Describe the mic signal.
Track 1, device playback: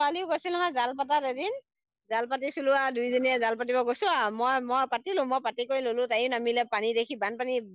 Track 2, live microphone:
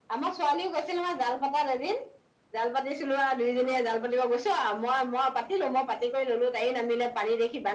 echo only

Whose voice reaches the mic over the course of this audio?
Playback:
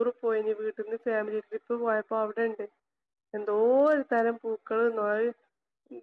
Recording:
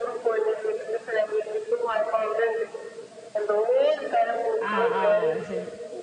both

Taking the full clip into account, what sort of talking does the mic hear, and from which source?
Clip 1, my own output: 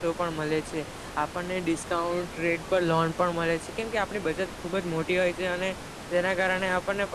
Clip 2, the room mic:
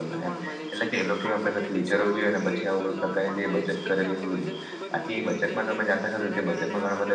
both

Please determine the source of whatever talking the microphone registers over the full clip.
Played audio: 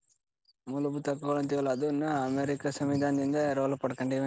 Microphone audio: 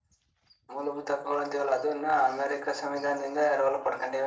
echo only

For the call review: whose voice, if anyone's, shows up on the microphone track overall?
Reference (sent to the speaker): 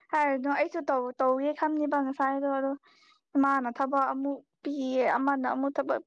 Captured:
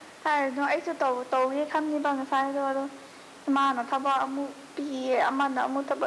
echo only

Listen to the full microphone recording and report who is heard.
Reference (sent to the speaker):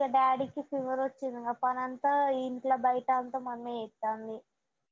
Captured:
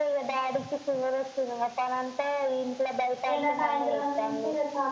both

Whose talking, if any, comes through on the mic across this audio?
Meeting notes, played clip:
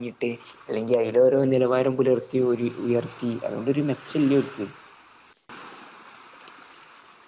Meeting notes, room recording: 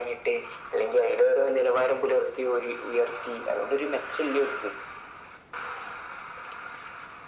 echo only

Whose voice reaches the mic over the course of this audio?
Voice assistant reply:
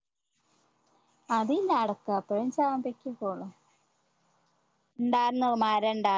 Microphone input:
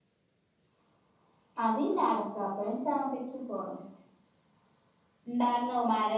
echo only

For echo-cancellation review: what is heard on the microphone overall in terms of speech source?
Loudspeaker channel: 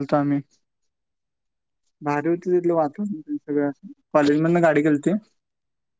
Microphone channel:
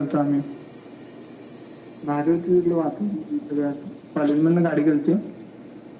echo only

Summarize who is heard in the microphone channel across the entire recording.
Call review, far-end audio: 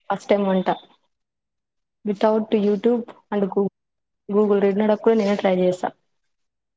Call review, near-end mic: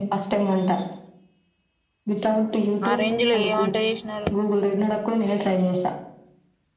both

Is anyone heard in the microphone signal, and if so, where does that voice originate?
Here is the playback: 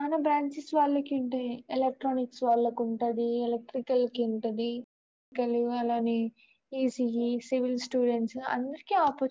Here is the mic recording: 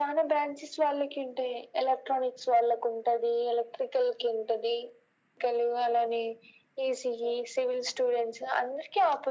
echo only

